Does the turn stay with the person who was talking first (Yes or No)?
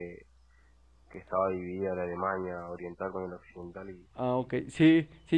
No